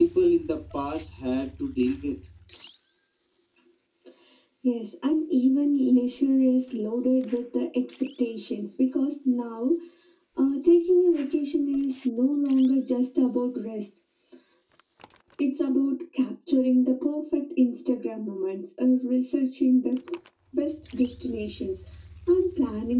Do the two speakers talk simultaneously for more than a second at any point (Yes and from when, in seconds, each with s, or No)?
No